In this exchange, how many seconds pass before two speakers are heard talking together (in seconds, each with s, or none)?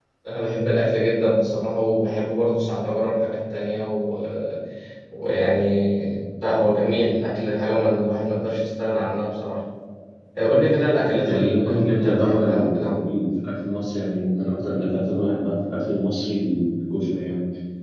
11.2 s